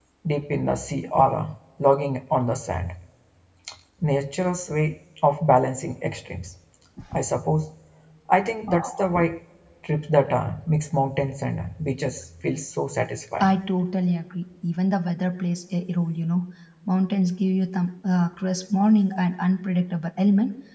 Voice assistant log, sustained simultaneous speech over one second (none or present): none